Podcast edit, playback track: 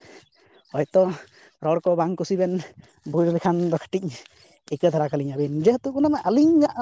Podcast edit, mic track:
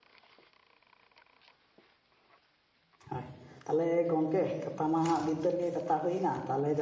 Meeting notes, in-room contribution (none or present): present